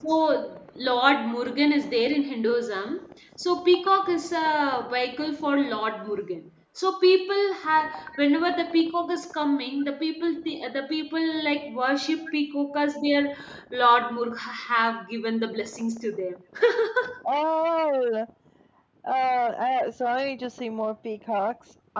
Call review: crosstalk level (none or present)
none